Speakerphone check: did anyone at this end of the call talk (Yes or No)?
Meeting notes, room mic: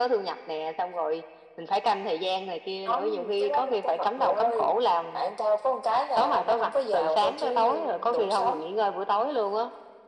No